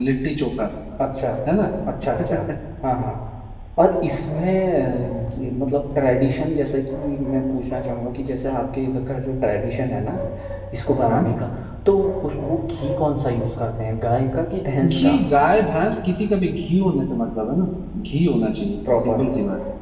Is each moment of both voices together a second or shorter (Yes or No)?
Yes